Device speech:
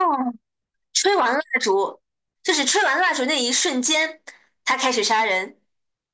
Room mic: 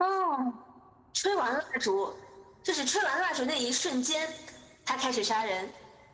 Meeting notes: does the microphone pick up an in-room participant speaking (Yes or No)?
No